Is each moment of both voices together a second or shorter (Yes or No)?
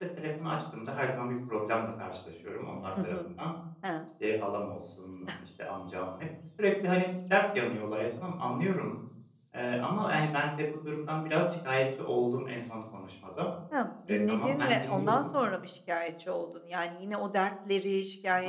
No